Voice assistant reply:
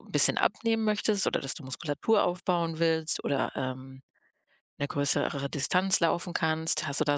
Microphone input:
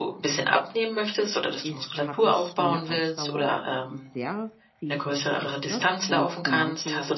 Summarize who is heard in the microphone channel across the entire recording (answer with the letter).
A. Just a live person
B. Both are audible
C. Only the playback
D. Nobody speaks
B